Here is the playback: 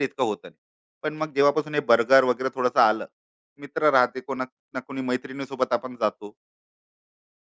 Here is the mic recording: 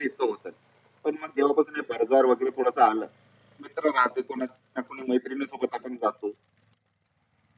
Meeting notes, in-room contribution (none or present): none